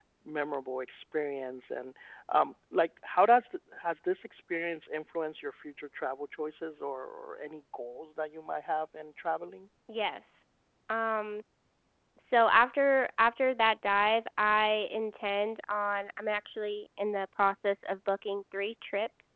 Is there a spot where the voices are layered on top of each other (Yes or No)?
No